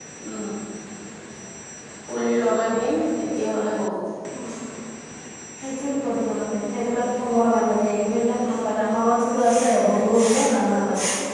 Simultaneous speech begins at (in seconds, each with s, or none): none